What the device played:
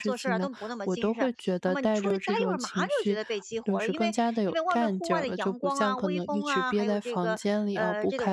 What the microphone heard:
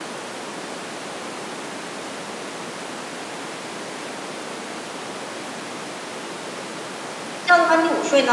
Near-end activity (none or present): present